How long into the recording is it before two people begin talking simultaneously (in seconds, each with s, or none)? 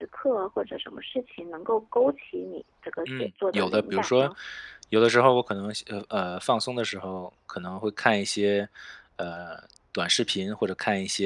3.1 s